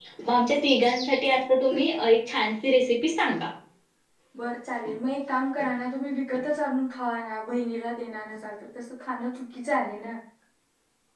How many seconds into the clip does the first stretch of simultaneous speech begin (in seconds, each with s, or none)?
none